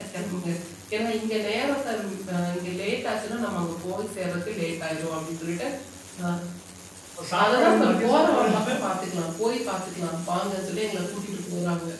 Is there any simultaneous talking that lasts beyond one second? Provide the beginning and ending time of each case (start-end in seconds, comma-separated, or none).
7.4-8.7